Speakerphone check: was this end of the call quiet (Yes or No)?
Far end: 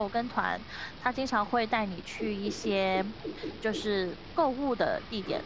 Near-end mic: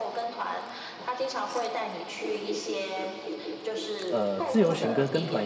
No